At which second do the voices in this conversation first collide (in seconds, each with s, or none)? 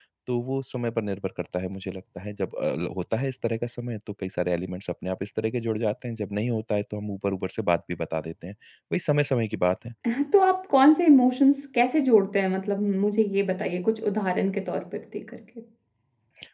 none